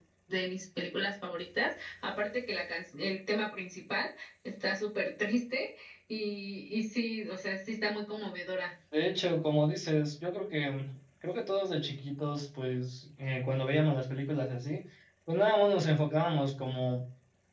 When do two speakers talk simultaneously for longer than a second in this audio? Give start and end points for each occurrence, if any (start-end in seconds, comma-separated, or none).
none